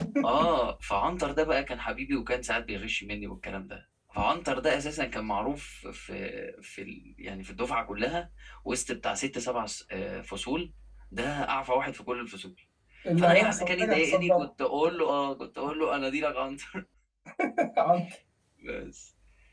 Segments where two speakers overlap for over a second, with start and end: 13.2-14.5

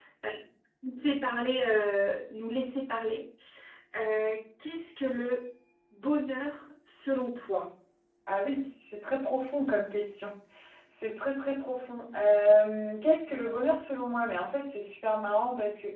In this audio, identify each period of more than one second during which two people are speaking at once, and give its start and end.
none

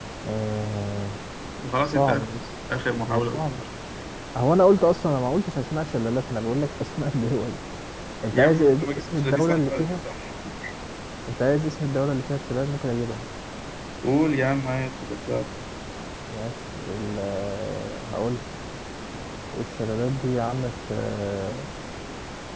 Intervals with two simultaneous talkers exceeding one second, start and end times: 8.3-9.8

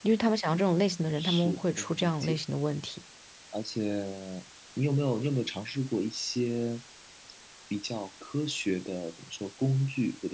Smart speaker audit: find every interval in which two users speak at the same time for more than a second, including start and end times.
1.2-2.4

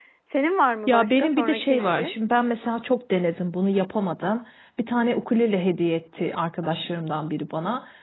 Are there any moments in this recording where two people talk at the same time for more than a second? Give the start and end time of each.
0.9-2.1

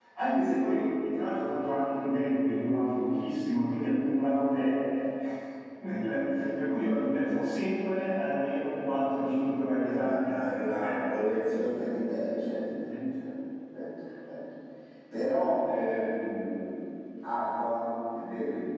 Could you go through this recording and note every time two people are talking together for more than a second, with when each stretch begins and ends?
9.8-11.1

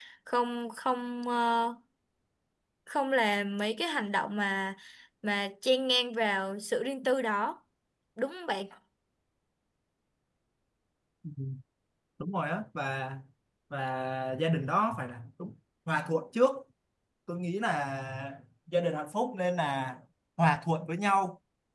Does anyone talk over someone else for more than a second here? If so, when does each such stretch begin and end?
none

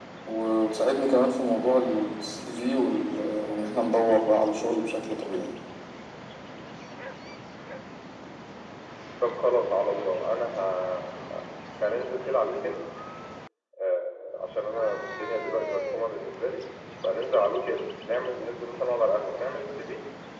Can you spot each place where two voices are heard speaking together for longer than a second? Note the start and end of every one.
none

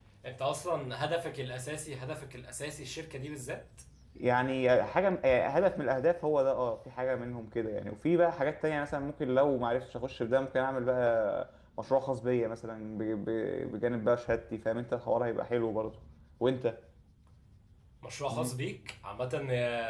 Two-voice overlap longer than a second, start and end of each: none

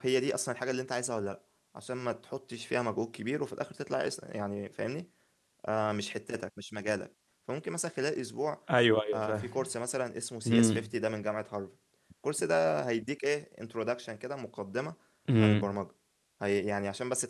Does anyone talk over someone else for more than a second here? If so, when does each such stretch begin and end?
none

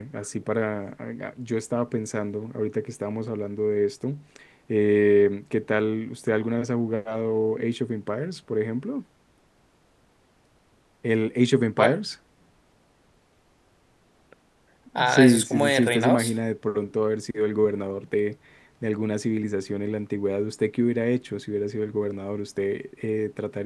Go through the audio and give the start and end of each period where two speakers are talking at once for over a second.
15.0-16.3

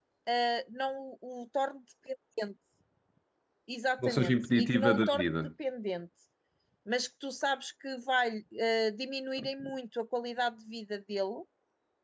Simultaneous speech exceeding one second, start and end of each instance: 4.0-5.5

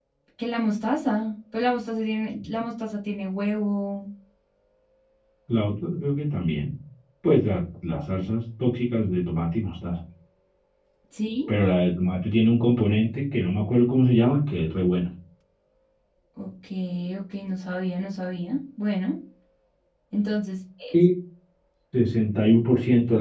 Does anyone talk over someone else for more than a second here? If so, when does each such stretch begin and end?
none

